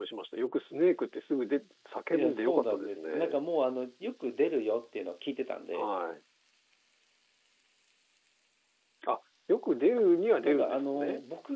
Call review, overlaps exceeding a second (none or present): present